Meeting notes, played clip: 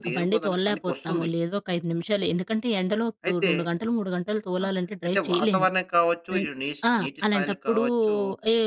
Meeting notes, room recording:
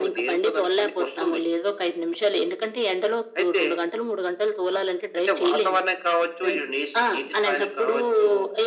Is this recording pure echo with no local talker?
Yes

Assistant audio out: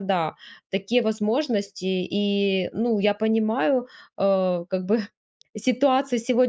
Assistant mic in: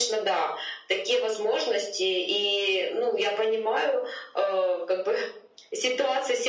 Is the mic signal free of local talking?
Yes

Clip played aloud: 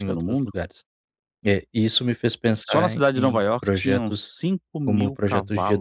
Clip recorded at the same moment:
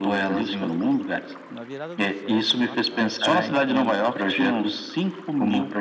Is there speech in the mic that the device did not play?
Yes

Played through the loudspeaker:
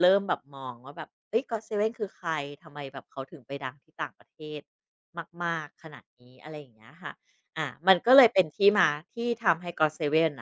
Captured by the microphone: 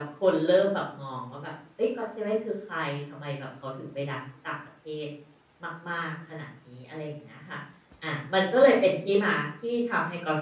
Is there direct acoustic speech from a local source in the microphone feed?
No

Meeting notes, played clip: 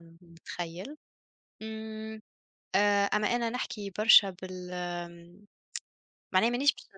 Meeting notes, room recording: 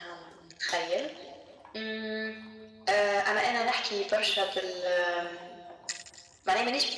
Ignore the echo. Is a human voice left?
No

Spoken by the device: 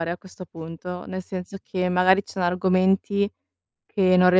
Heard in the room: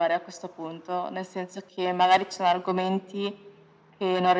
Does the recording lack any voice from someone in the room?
Yes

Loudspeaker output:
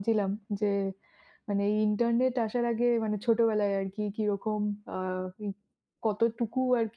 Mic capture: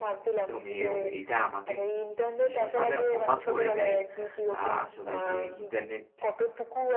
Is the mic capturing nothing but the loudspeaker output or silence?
No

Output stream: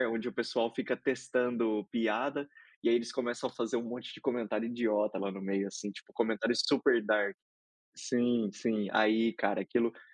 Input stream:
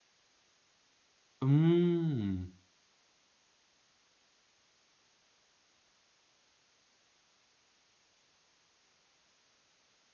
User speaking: Yes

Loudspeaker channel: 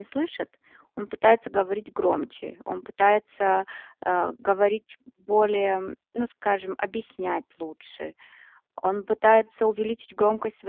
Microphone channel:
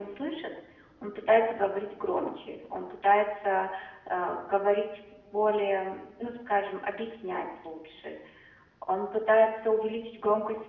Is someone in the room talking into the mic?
No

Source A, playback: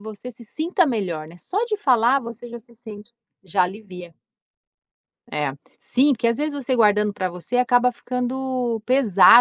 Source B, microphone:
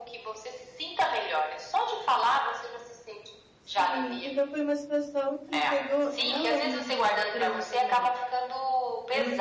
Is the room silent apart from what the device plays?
No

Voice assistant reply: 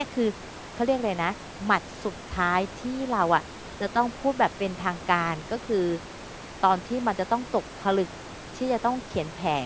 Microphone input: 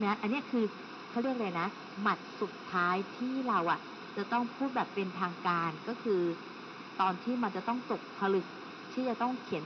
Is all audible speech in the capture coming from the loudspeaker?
Yes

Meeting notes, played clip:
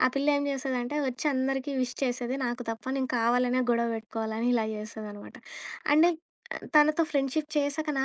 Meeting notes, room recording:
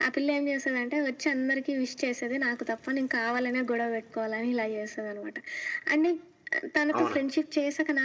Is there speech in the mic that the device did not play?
Yes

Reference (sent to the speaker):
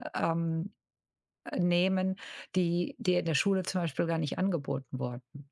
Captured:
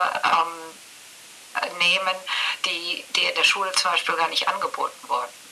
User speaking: No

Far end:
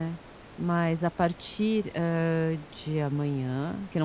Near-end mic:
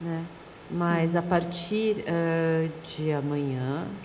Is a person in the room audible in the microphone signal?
Yes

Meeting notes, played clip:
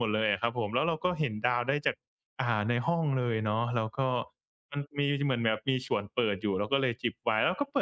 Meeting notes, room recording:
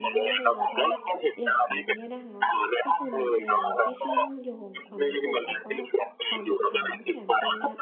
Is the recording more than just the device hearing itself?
Yes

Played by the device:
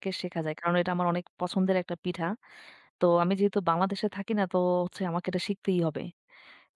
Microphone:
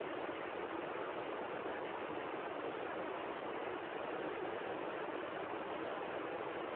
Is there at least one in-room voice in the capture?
No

